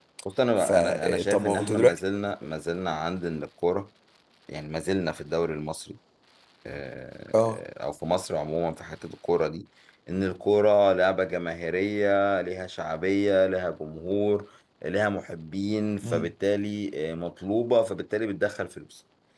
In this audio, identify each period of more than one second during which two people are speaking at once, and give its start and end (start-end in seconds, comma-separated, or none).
0.6-2.0